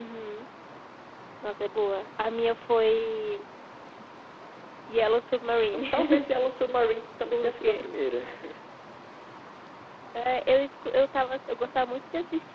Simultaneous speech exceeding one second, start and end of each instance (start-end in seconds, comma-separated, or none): none